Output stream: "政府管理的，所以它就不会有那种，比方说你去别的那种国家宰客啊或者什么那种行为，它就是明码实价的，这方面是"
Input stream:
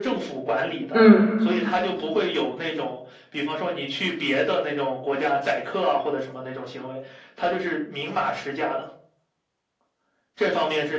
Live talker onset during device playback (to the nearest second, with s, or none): 1 s